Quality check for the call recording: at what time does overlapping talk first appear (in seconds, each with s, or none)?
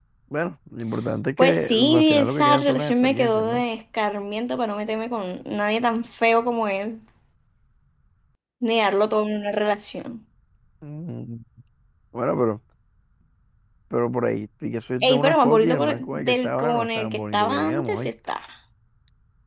1.4 s